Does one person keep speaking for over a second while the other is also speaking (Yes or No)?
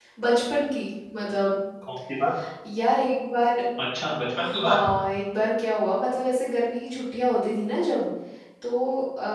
No